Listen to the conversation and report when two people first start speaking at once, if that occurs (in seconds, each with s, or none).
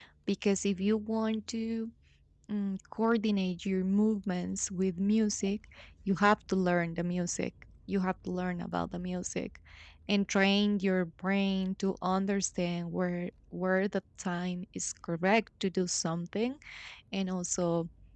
none